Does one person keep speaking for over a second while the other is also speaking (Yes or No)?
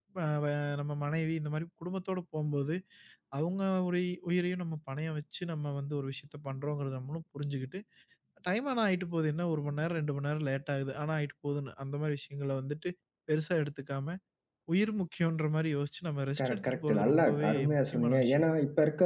Yes